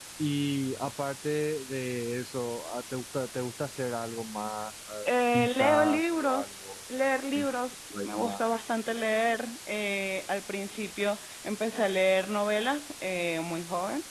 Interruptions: present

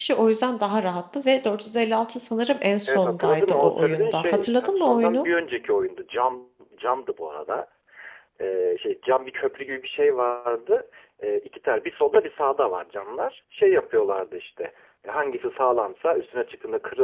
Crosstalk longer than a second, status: present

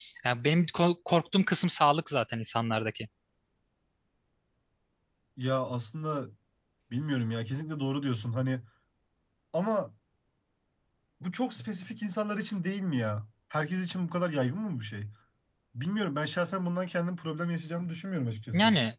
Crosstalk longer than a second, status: none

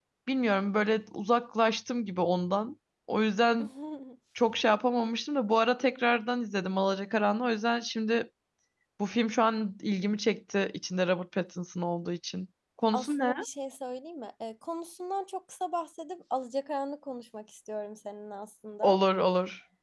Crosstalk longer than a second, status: none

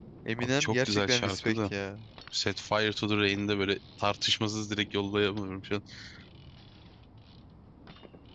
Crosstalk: present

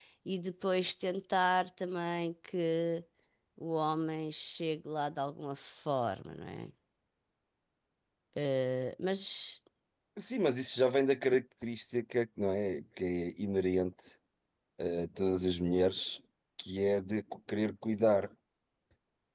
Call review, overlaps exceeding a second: none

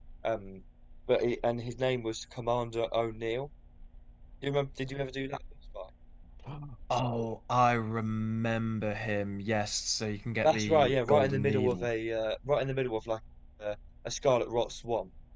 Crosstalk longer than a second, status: present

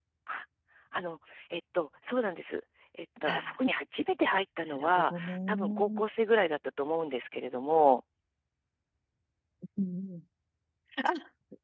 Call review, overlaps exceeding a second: present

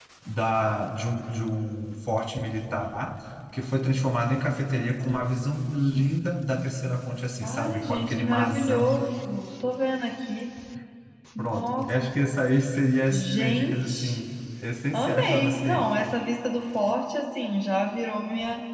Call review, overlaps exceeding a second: present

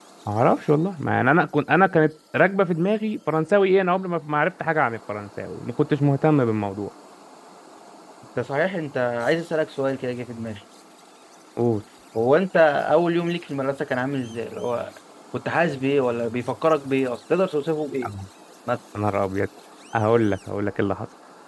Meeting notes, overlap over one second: none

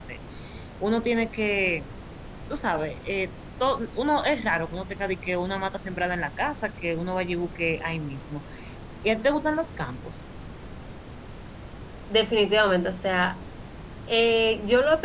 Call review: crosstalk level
none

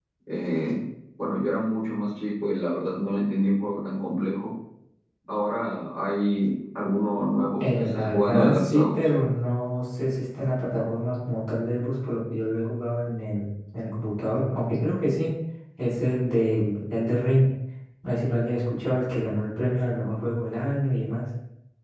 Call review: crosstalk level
present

